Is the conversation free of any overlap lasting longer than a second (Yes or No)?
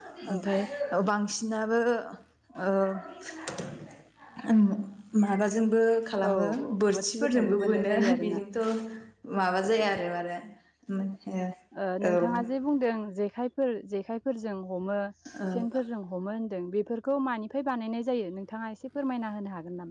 No